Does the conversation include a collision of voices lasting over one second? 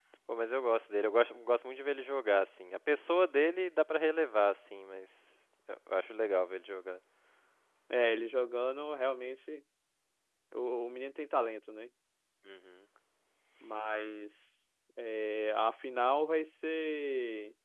No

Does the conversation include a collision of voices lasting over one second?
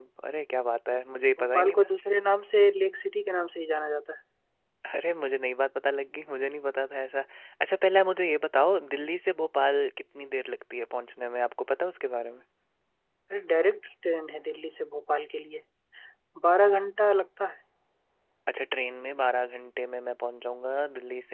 No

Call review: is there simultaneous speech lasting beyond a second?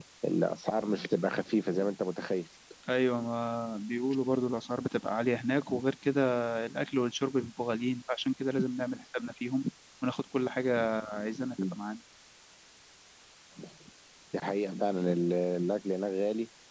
No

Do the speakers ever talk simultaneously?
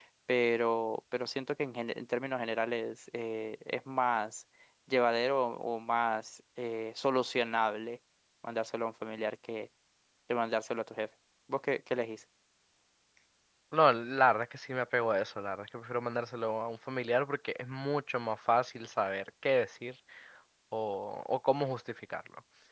No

